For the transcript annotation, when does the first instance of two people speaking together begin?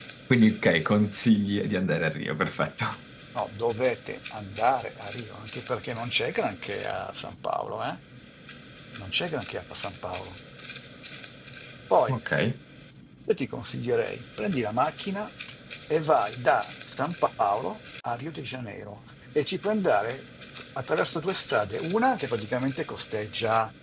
none

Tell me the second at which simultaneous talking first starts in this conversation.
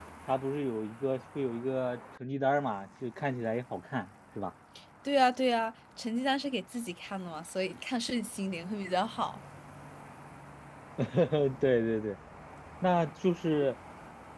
none

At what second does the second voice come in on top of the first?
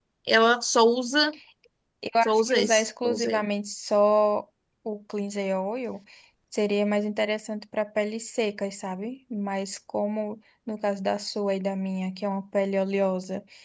2.2 s

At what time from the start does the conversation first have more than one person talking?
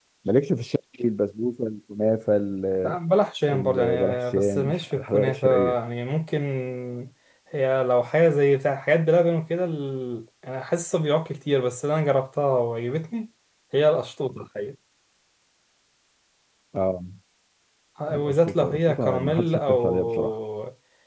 3.5 s

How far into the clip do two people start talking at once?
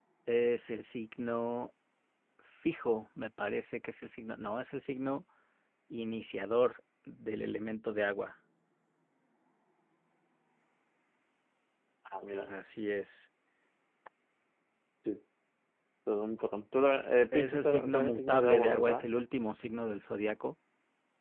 17.3 s

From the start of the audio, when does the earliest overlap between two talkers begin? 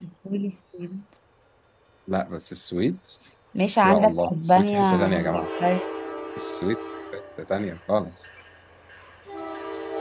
3.8 s

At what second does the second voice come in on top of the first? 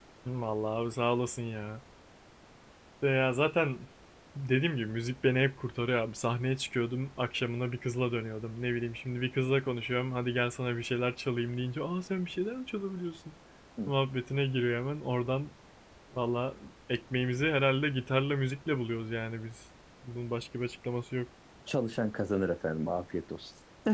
none

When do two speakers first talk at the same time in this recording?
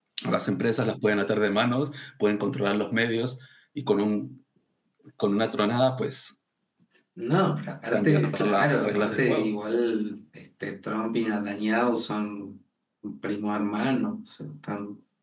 7.9 s

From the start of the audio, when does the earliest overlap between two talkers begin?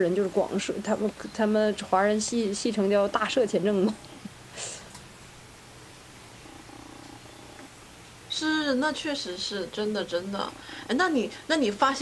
none

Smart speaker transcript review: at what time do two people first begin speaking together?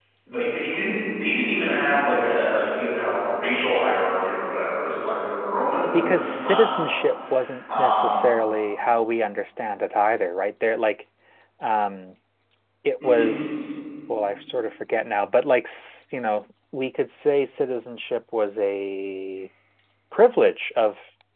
5.9 s

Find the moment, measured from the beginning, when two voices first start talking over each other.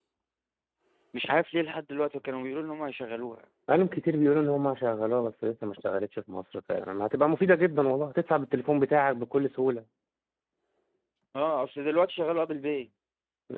none

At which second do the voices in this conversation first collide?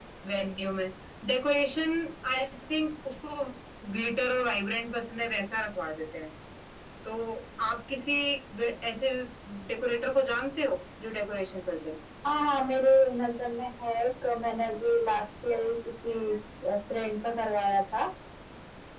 none

